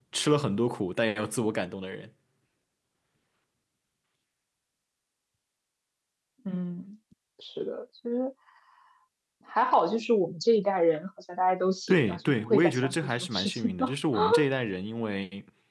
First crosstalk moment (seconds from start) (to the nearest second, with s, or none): 12 s